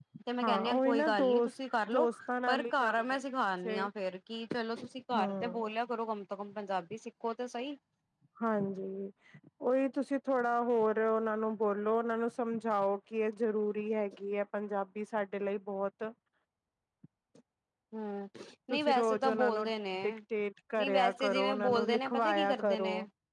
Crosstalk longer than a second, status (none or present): present